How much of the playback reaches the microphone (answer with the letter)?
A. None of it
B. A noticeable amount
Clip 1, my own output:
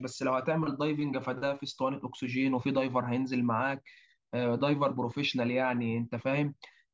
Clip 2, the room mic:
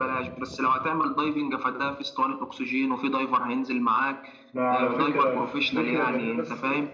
B